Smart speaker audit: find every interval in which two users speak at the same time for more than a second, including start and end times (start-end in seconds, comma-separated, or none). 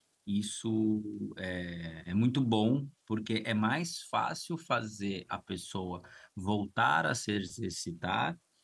none